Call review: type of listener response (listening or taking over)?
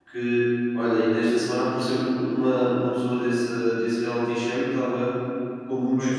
listening